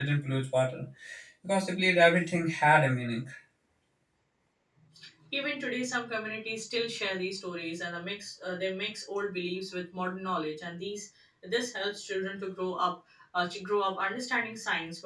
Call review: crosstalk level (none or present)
none